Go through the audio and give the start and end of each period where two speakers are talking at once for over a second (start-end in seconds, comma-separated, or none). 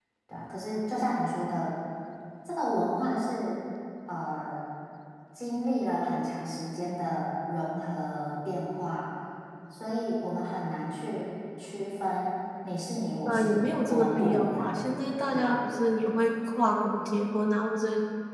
13.2-14.8